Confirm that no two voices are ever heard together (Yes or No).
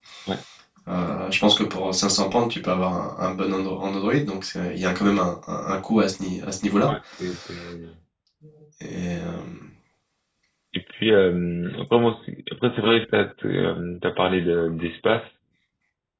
Yes